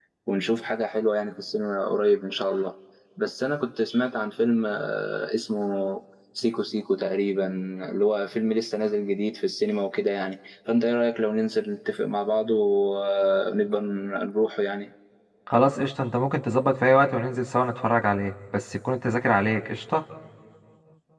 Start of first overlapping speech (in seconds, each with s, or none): none